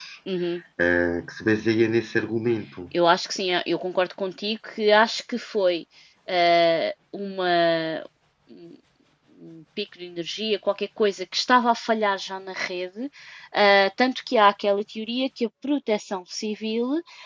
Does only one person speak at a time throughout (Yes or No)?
Yes